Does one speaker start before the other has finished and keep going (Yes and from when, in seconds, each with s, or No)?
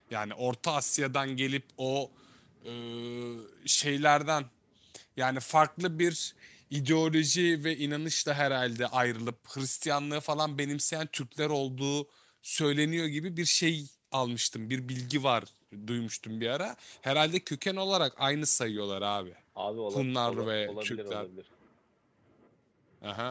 Yes, from 19.9 s